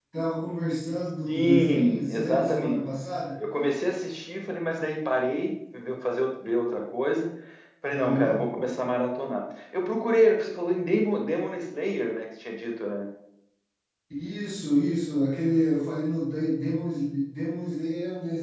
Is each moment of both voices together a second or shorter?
No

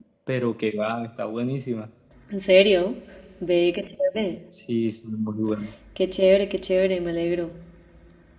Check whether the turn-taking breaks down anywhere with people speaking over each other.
No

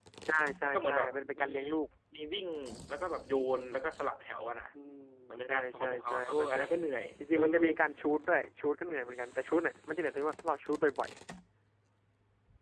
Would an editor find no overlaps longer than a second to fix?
No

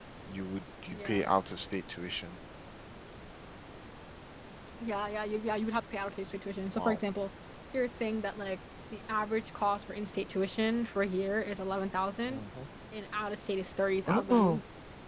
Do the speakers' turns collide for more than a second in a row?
No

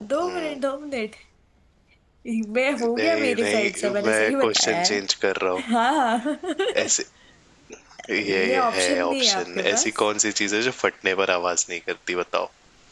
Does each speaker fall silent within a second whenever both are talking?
No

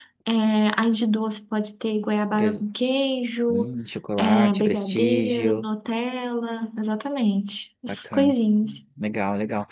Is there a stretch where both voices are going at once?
Yes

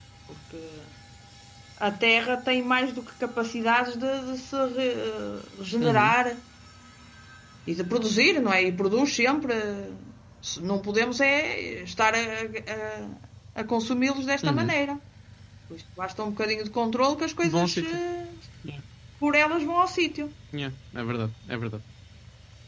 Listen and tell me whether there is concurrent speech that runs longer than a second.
No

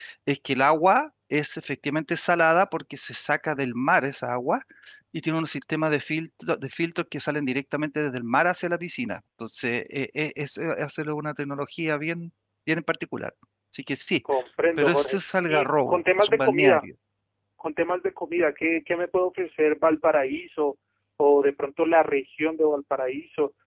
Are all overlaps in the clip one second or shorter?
No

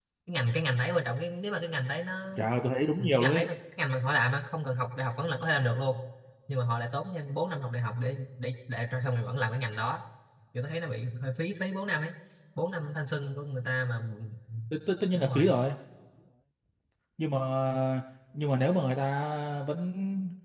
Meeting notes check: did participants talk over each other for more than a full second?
No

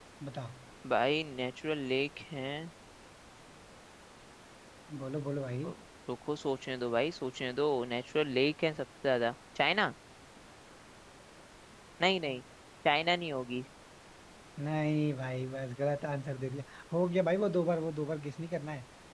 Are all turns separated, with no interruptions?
Yes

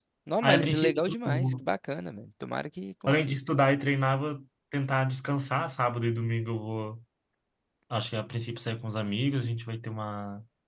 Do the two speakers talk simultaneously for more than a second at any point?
Yes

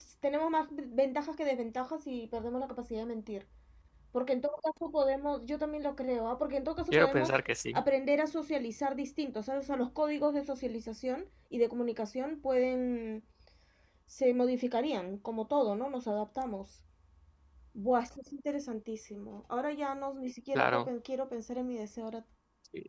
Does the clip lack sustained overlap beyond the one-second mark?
Yes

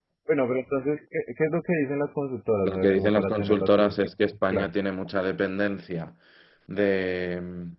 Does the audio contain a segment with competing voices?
Yes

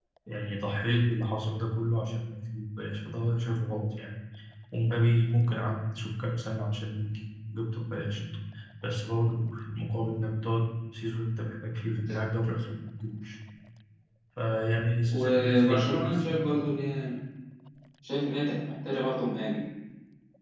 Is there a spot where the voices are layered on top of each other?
Yes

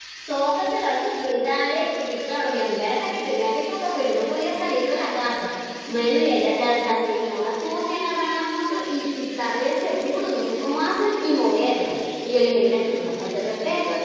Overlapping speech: No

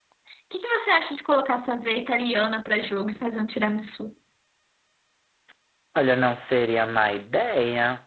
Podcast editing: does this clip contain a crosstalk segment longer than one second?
No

